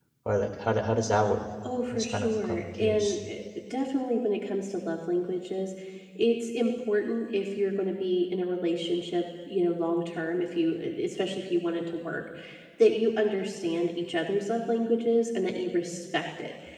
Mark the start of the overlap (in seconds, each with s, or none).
1.9 s